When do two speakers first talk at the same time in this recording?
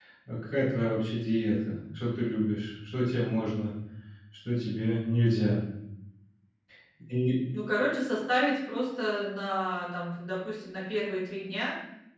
none

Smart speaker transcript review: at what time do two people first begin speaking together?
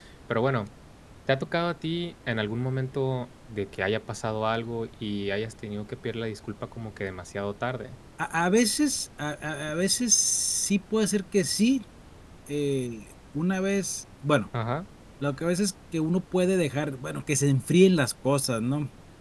none

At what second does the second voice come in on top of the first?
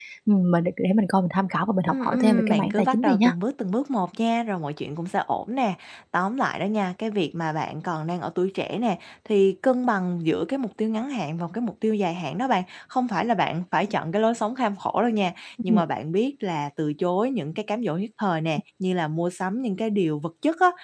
2 s

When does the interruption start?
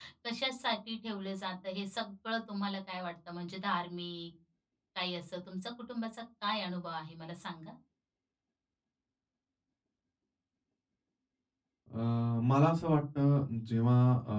none

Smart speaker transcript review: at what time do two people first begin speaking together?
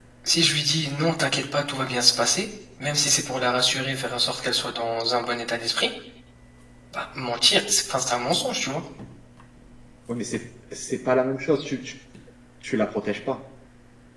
none

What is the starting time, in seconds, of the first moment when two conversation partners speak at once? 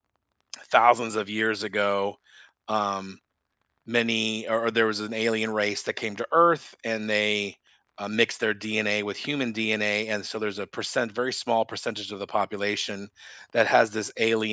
none

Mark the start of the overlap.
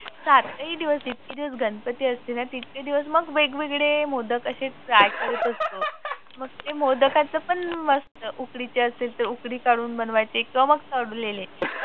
none

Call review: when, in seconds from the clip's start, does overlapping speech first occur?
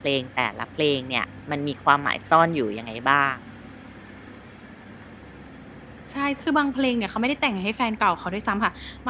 none

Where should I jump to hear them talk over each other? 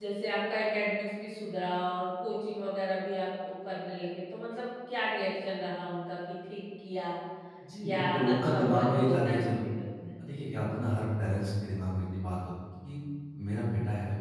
8 s

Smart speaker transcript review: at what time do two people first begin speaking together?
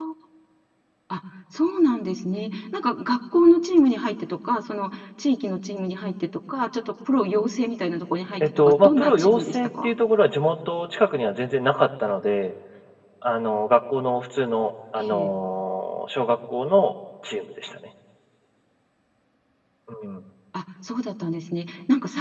8 s

